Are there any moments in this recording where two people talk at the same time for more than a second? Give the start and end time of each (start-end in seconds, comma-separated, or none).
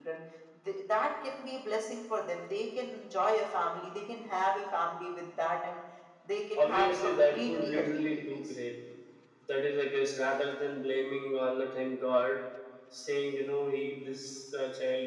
6.5-8.5